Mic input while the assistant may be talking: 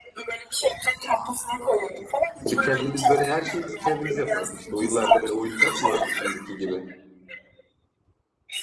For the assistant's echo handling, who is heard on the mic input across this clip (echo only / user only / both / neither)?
both